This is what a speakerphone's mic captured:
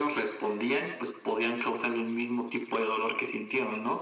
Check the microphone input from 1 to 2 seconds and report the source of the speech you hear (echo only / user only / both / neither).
echo only